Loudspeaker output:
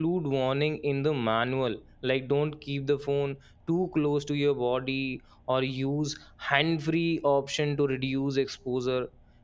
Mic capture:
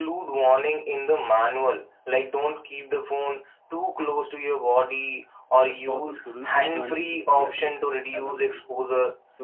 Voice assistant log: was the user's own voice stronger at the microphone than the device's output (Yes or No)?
No